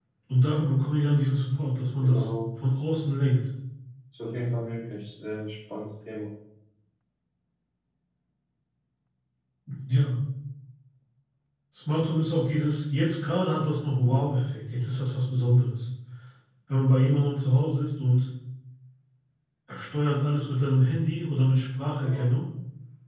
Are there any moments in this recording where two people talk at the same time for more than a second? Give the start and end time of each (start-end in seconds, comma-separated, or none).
none